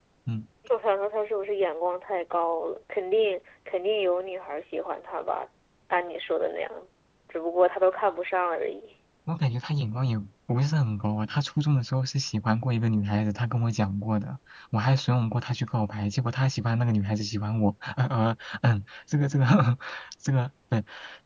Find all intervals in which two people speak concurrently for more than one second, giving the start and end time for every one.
none

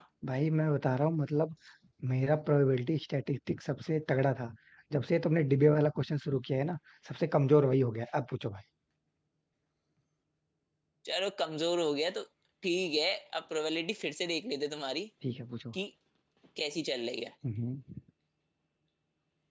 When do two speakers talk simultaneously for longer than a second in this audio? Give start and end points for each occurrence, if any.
none

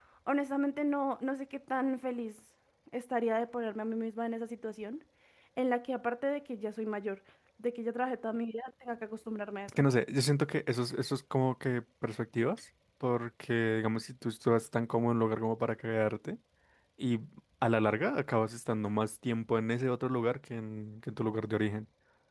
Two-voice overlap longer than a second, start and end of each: none

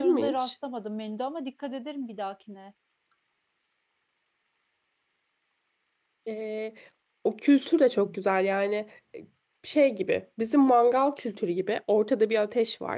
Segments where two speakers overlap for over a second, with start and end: none

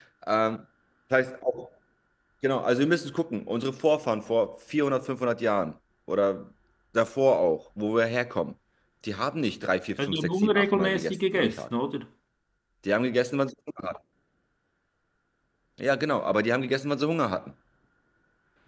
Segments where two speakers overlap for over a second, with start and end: 10.0-11.6

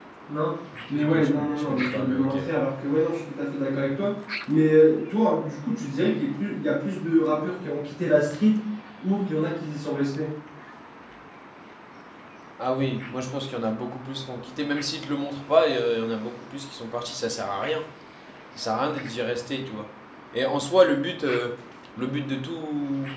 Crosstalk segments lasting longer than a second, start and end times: 0.9-2.4

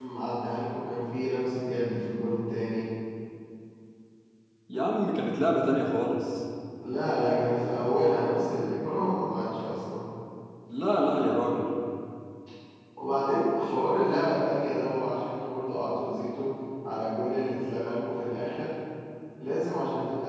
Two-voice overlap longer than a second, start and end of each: none

